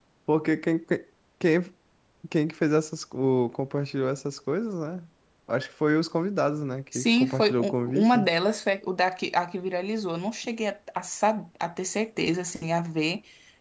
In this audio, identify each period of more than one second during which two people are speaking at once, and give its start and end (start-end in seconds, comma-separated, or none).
7.0-8.3